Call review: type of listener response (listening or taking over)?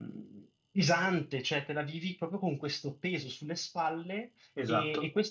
listening